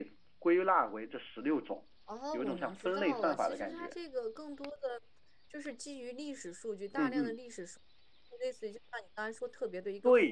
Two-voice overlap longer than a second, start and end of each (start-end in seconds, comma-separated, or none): 2.3-3.9